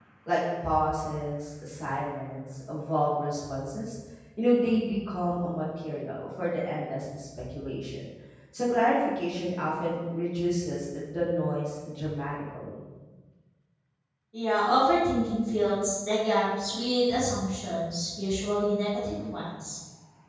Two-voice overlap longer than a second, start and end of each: none

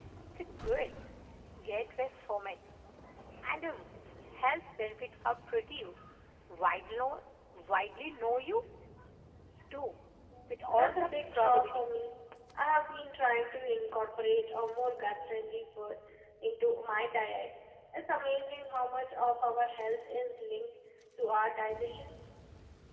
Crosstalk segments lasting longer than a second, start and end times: 10.7-12.1

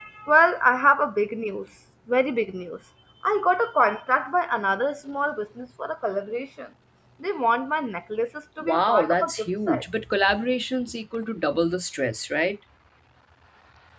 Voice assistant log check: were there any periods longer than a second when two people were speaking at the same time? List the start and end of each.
8.6-9.8

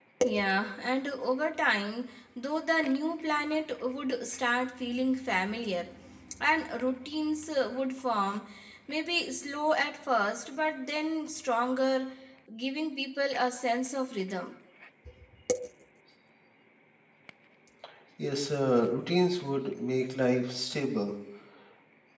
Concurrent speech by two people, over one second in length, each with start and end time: none

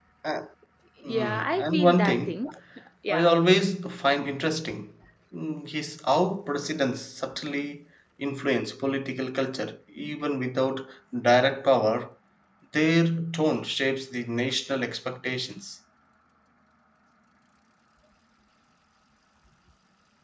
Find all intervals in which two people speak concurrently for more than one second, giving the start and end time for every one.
1.1-2.4

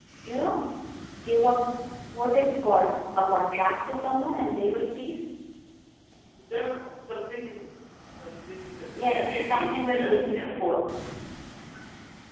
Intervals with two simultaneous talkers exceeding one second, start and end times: 9.0-10.7

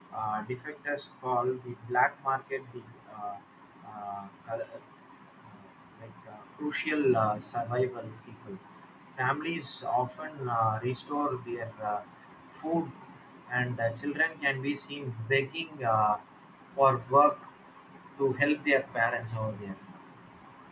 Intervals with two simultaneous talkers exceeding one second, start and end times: none

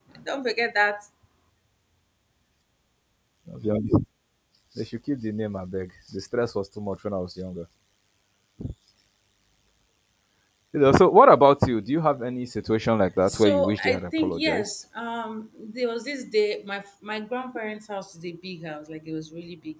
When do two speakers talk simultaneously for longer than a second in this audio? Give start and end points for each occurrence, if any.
13.3-14.7

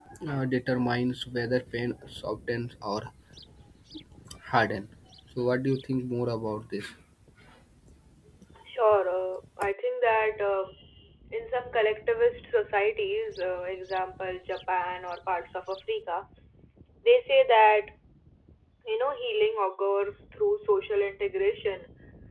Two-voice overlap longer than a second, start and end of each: none

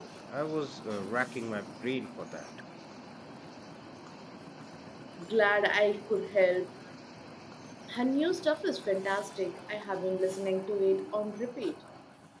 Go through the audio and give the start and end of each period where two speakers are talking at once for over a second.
none

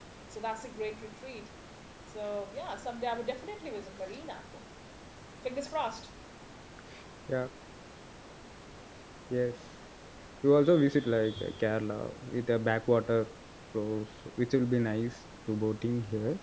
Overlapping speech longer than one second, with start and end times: none

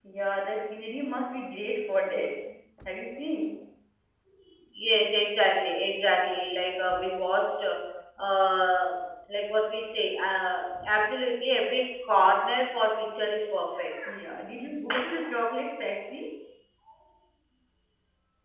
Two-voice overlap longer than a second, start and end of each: none

